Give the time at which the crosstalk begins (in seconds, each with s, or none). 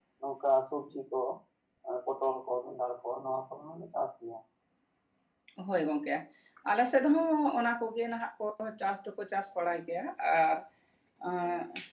none